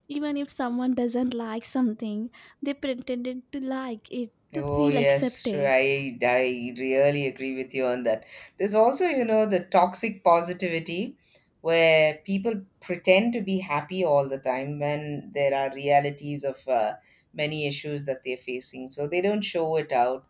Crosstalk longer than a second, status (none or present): present